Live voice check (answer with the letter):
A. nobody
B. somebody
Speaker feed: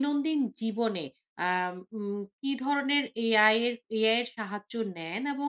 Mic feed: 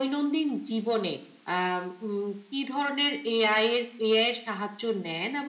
A